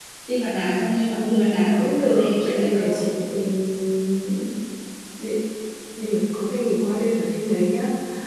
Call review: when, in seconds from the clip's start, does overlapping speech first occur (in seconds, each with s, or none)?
1.1 s